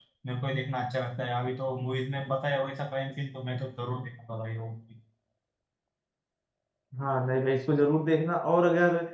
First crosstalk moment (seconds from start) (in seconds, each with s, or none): none